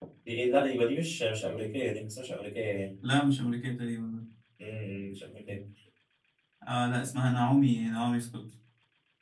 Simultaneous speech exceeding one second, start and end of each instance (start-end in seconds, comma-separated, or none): none